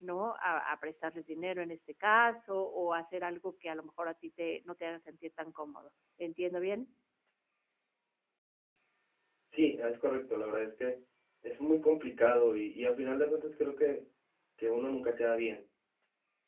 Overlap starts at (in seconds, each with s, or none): none